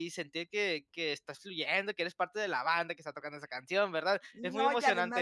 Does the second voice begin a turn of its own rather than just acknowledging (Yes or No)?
Yes